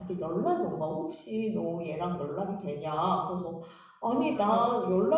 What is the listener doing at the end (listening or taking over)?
listening